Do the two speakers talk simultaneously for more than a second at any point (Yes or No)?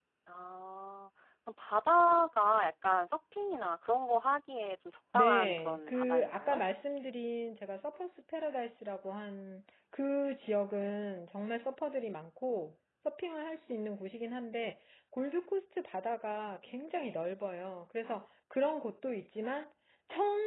Yes